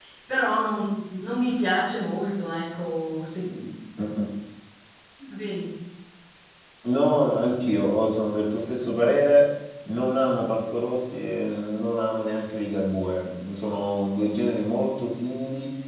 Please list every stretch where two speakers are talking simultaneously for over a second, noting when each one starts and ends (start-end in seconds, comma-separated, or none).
none